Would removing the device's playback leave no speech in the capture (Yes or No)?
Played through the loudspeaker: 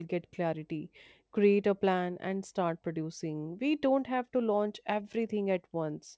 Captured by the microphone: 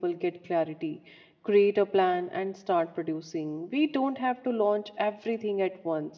Yes